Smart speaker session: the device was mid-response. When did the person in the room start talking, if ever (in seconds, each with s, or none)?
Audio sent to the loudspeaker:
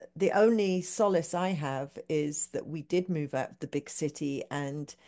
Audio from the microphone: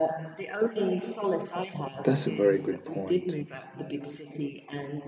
2.0 s